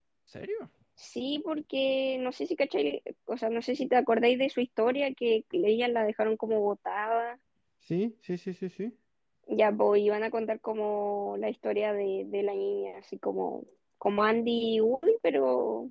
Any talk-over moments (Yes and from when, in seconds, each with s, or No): No